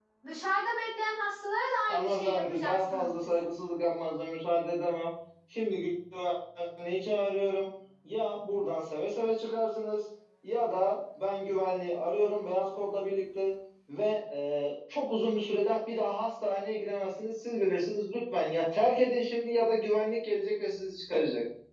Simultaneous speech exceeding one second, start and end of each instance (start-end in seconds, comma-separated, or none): 1.9-3.3